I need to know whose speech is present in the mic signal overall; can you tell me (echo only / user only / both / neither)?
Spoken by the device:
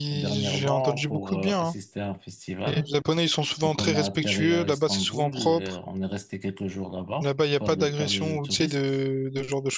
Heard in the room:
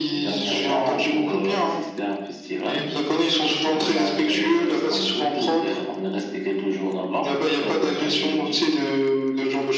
echo only